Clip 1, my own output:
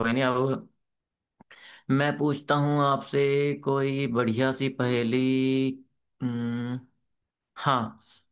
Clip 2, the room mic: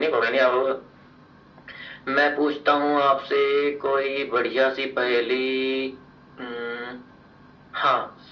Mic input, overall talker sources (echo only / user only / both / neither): echo only